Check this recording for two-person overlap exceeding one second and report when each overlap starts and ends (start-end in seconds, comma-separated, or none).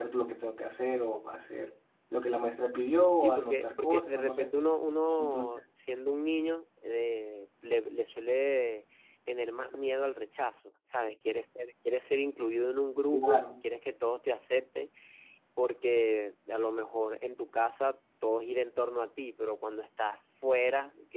3.2-4.5